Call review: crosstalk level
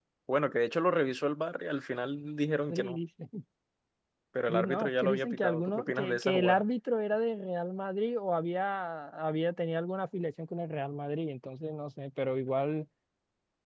present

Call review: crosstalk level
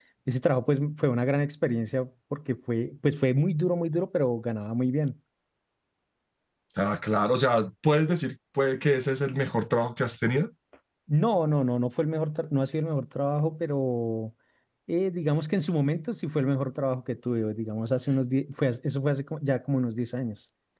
none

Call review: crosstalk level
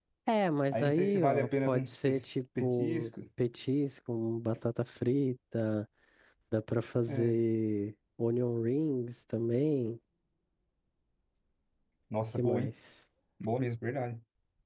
present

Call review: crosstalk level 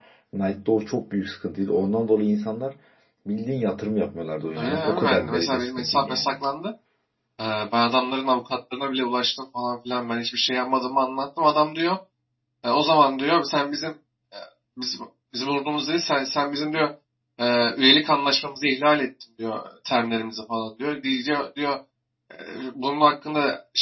present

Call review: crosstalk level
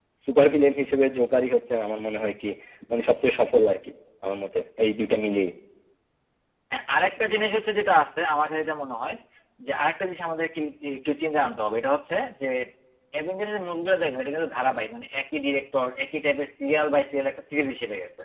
none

